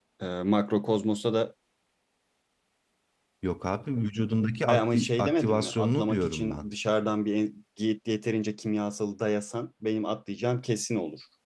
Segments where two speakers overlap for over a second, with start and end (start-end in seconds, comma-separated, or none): 4.7-6.7